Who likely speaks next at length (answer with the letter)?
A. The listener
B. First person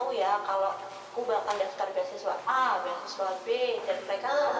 B